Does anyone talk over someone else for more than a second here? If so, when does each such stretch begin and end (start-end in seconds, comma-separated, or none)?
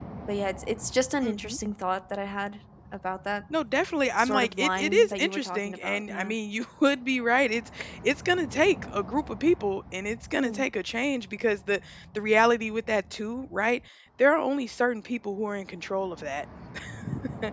4.2-6.3